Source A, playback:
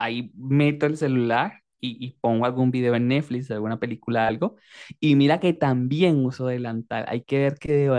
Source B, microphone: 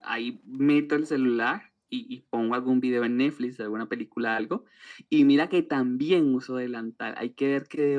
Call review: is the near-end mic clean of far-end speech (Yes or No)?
No